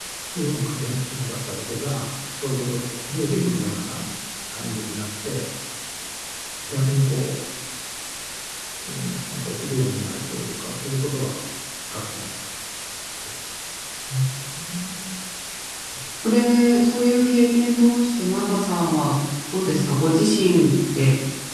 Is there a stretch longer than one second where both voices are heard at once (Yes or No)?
No